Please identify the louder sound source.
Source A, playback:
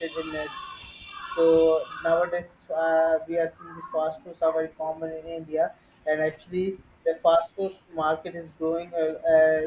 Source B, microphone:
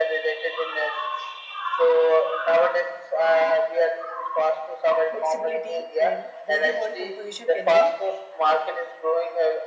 echo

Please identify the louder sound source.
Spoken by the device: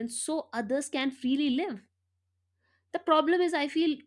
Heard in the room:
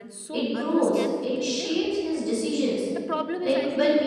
user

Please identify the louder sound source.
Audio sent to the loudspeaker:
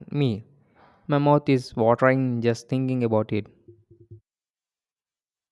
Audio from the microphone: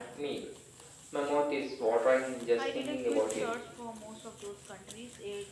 echo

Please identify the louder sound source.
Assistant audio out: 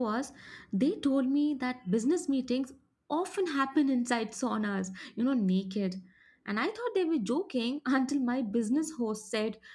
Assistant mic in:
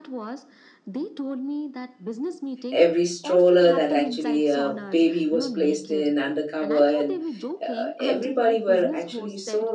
user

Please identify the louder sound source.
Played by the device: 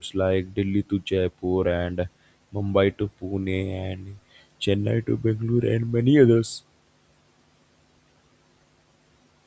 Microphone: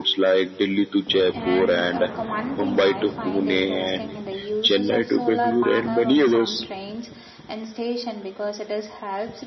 echo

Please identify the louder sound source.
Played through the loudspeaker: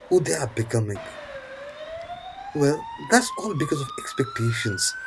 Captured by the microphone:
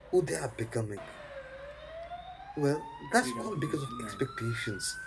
echo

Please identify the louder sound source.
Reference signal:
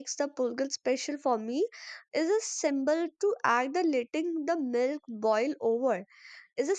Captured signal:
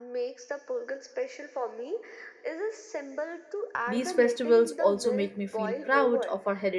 user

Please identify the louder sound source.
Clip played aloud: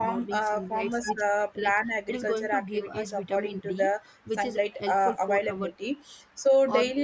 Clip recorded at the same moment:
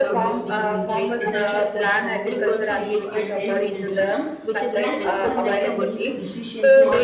echo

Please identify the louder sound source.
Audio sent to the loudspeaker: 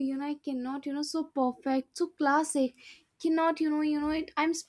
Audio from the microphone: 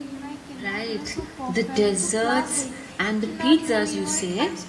user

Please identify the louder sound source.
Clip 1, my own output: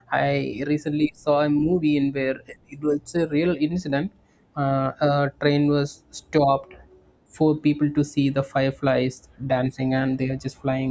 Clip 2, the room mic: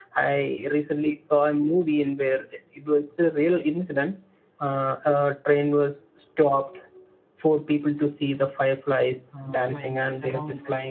echo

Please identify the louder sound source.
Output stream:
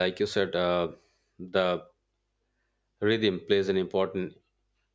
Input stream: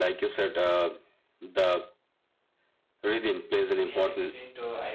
echo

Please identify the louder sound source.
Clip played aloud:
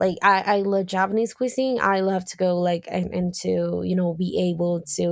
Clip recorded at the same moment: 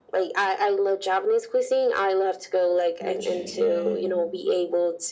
echo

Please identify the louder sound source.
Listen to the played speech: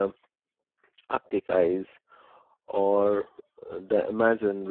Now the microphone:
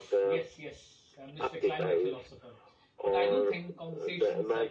echo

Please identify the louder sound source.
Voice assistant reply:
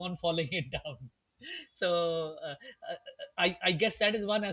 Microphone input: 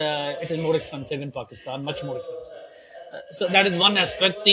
user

